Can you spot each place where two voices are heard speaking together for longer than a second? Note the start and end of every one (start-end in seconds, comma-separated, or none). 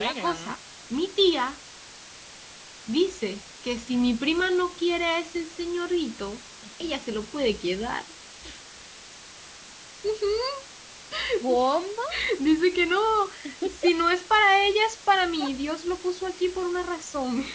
none